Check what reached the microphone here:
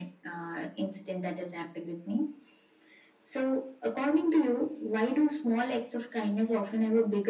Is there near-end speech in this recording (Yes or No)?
No